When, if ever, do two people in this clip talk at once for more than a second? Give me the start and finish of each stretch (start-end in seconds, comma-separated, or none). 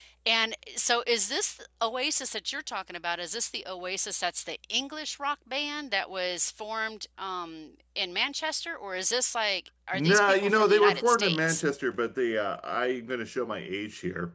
9.9-11.6